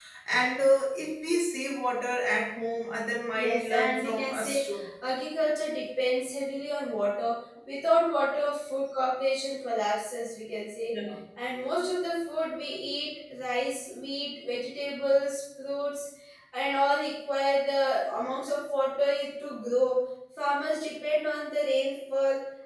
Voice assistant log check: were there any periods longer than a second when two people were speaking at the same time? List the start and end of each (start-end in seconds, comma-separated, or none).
3.4-4.6